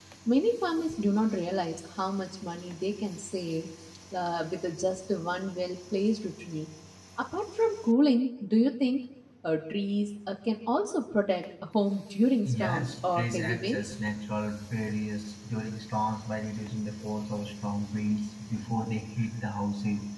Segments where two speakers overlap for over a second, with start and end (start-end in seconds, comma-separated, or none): 12.5-13.9